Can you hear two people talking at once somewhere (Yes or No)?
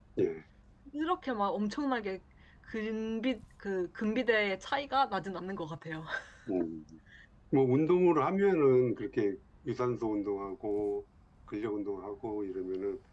No